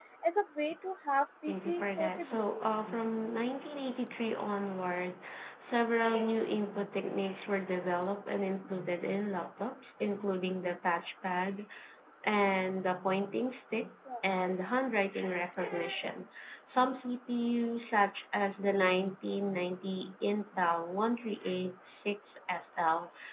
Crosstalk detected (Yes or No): Yes